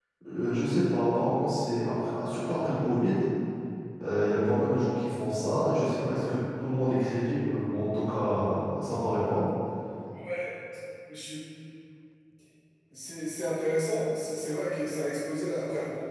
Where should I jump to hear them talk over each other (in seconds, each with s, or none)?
none